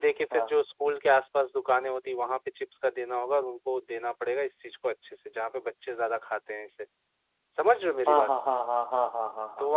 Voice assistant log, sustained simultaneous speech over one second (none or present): none